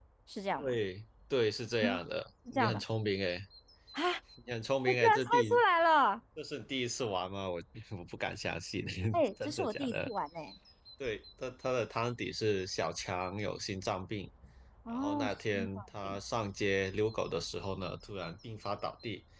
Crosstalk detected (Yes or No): Yes